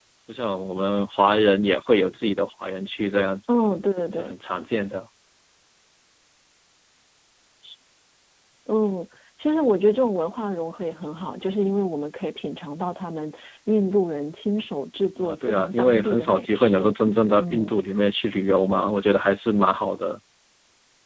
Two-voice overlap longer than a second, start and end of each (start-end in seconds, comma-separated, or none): 15.2-16.9